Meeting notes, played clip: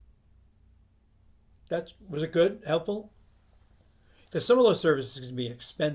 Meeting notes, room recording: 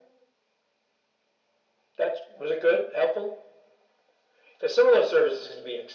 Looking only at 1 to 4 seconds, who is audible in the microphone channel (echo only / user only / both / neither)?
echo only